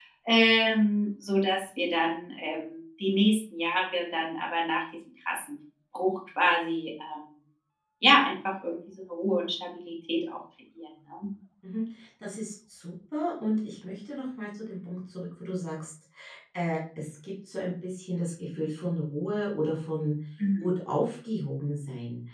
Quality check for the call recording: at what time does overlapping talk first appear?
none

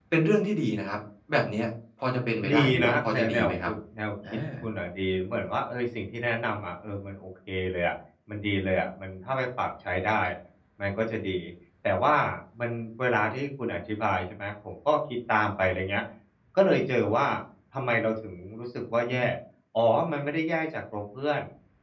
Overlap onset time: 2.5 s

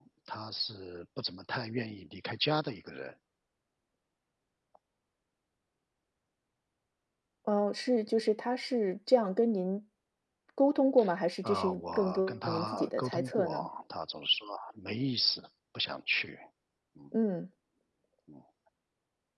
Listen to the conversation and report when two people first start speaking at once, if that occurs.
11.4 s

